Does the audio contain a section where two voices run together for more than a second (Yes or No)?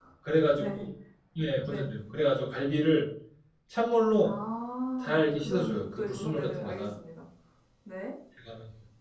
Yes